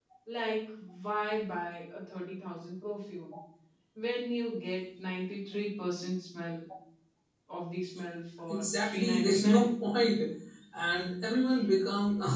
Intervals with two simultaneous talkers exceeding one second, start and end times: 8.5-9.7

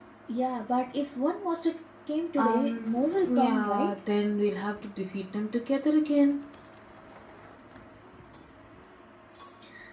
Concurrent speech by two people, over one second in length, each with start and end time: 2.4-4.0

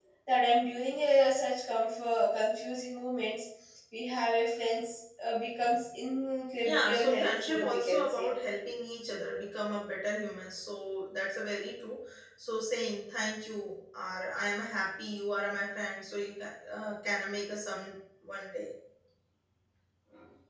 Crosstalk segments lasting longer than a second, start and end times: 6.6-8.3

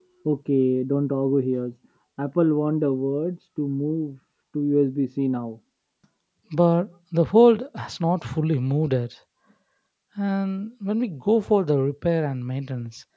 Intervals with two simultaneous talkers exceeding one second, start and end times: none

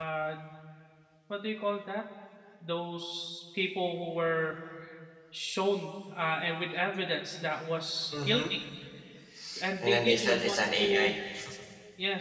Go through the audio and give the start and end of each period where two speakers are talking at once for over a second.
9.8-11.1

